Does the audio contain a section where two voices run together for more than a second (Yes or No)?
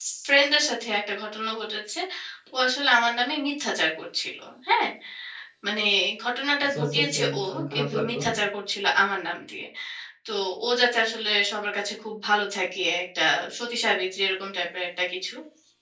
Yes